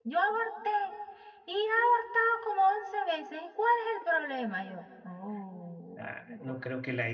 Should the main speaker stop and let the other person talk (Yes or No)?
Yes